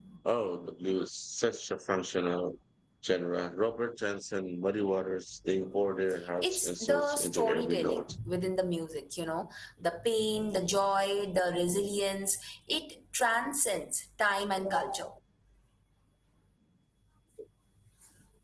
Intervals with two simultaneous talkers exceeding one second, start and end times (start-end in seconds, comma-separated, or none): 6.4-8.0